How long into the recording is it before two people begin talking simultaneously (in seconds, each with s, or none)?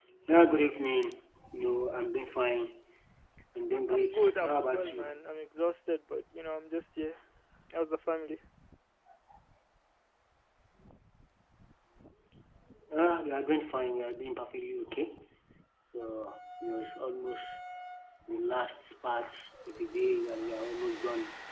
3.9 s